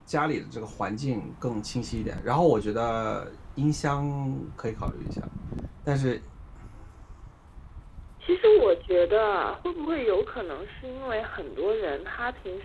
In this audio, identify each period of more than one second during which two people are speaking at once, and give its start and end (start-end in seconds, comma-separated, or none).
none